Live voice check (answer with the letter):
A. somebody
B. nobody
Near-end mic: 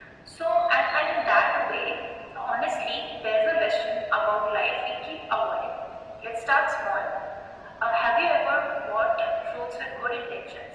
B